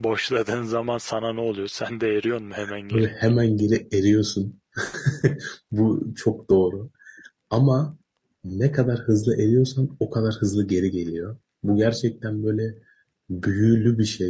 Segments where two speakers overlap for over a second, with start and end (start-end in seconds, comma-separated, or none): none